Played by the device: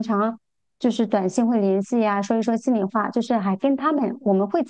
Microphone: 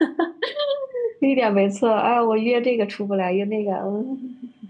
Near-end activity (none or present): present